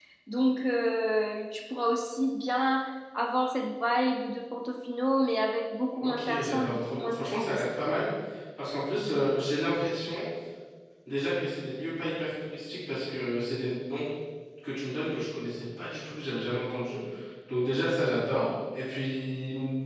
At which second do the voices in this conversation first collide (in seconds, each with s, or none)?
6.0 s